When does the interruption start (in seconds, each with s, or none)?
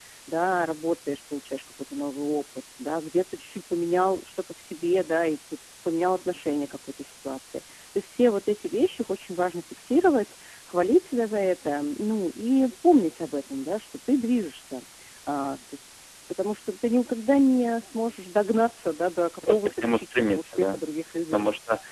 19.4 s